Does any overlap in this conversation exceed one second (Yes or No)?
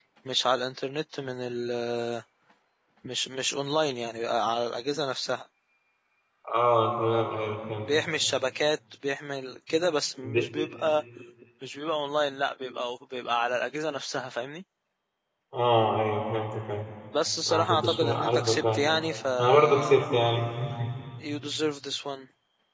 Yes